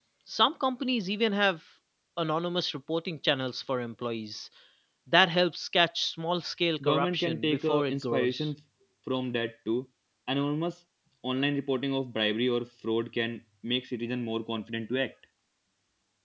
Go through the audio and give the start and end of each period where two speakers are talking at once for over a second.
6.8-8.5

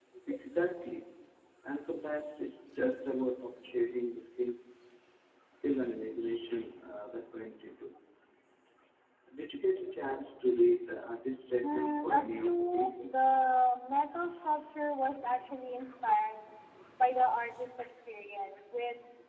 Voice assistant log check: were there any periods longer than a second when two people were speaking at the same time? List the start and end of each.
11.6-13.3

